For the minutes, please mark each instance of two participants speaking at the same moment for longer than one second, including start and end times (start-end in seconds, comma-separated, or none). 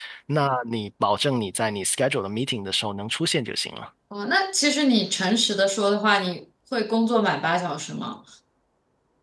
none